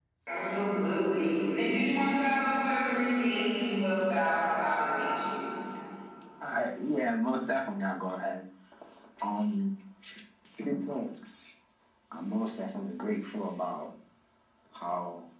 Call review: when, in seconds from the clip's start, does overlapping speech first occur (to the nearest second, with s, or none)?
none